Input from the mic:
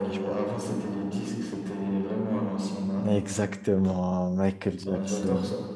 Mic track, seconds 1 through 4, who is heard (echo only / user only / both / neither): both